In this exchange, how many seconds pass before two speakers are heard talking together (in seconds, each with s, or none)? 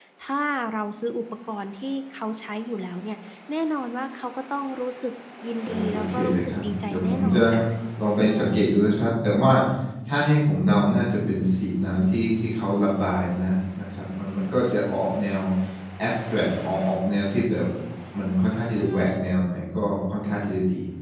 5.7 s